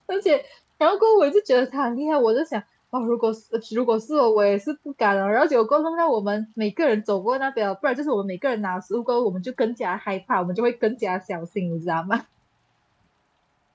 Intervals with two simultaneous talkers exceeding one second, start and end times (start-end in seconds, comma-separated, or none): none